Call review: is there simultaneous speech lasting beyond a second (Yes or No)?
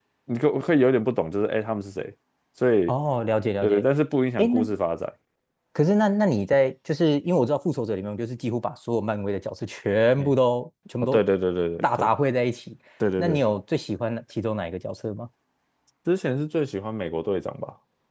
No